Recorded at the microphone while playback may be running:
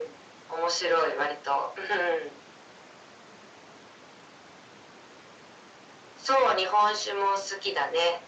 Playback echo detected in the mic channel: Yes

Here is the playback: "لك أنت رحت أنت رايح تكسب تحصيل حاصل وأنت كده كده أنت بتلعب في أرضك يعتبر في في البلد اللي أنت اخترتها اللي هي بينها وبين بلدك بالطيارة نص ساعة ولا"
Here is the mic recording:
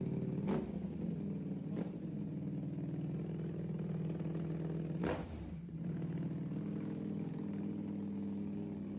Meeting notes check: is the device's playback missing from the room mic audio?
Yes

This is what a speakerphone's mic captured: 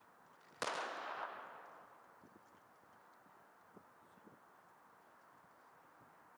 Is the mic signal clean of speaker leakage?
Yes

